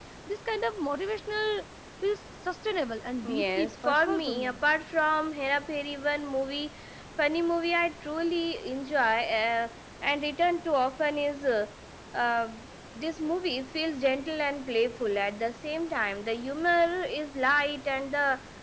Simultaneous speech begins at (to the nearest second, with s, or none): 3 s